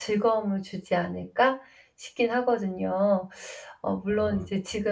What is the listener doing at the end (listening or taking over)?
listening